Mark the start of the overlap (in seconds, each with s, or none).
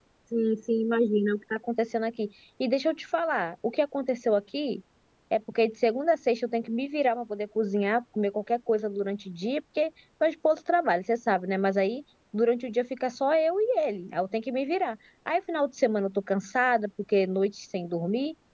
none